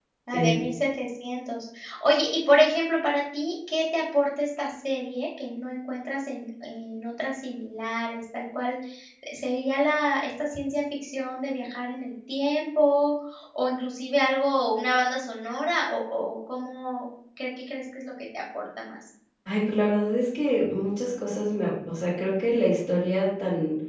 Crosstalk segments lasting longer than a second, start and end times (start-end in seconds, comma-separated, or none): none